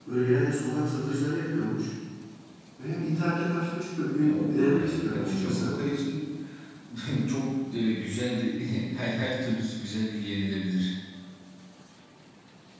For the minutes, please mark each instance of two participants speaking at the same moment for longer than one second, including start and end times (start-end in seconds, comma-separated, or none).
4.2-5.7